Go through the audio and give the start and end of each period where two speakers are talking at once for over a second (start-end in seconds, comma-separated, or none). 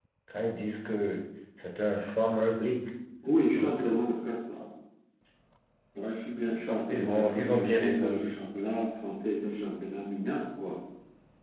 6.7-8.3